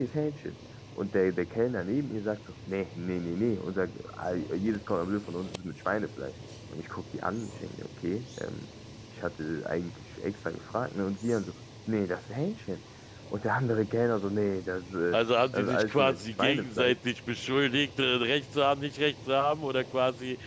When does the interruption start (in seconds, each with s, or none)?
15.5 s